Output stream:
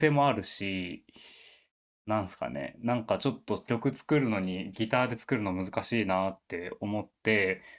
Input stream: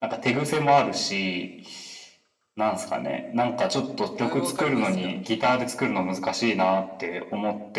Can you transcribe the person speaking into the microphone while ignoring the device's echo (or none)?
何もわかりますか